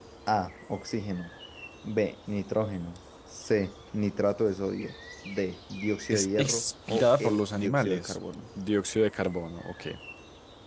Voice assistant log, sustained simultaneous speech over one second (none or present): present